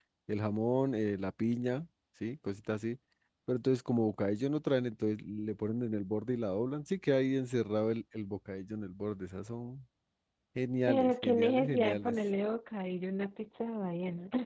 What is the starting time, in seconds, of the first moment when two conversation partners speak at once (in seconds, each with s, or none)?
10.9 s